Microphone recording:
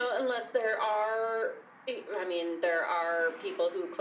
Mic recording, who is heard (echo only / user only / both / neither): echo only